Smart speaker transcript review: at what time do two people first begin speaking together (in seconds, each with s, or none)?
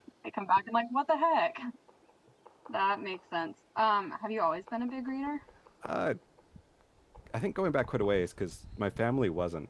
none